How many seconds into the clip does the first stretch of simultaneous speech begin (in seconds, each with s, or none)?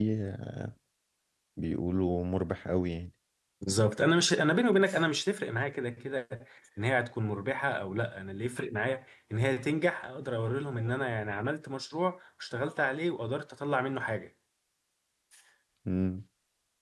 none